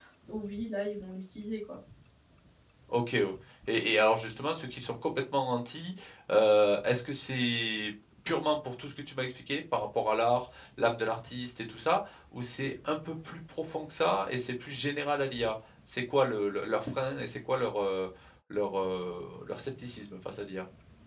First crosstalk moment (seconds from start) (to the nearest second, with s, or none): none